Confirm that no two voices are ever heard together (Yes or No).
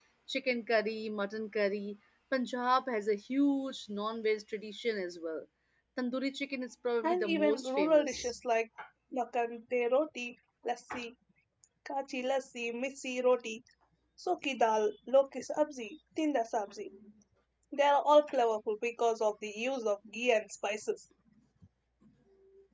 No